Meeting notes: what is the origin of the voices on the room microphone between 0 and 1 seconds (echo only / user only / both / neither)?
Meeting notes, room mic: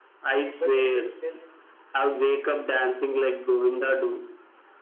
both